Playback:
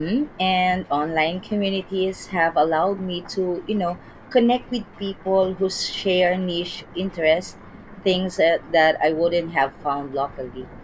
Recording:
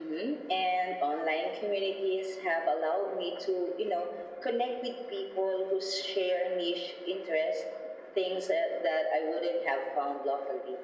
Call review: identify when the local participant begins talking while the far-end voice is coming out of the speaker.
none

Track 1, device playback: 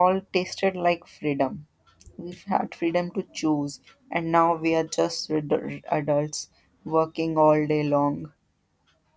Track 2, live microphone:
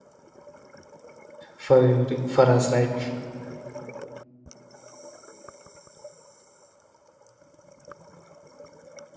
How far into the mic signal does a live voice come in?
2 s

